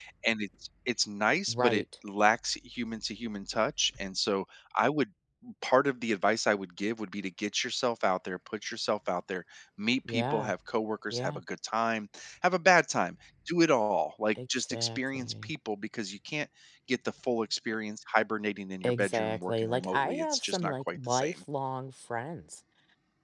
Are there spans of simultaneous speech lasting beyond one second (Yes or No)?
Yes